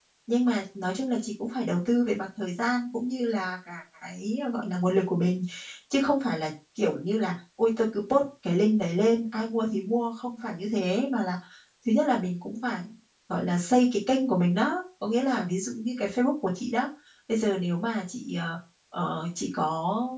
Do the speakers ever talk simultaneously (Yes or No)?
No